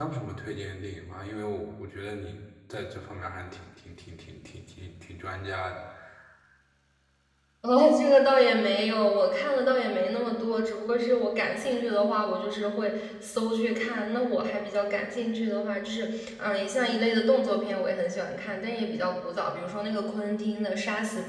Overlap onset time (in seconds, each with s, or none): none